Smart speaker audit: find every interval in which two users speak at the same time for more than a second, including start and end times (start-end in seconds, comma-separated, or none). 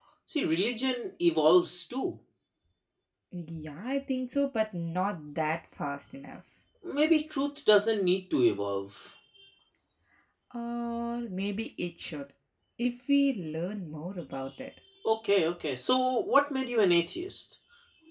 none